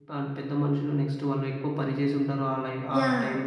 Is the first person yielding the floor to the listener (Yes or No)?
Yes